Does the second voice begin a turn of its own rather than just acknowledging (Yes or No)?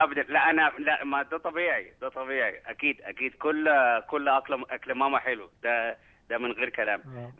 No